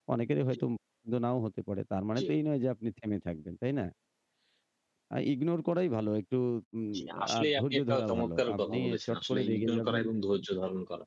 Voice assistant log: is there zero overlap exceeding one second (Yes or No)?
No